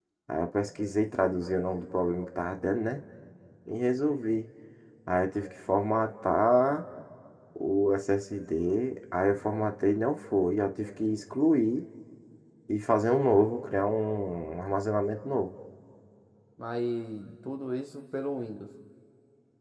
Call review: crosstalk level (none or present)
none